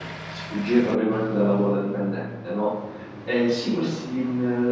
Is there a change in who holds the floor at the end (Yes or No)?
No